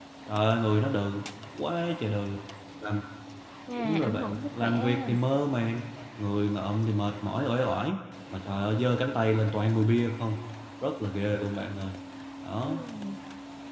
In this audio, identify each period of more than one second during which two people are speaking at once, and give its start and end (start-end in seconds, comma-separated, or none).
3.8-5.1